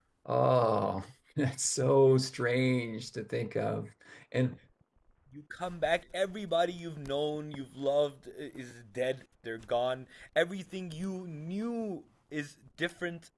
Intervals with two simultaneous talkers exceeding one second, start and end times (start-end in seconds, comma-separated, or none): none